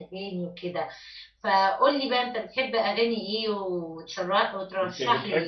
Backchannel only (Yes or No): No